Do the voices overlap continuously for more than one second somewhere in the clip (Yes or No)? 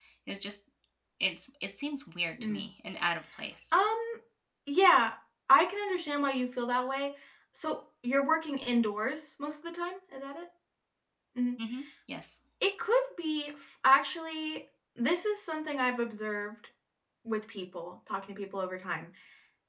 No